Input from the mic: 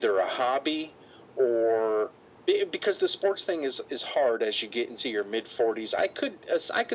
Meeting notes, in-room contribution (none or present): none